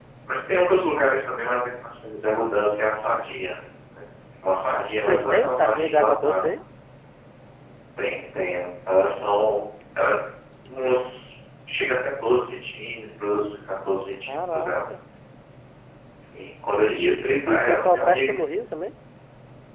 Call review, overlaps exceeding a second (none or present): present